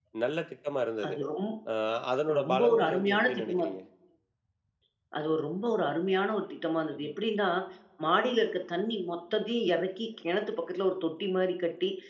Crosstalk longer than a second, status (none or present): present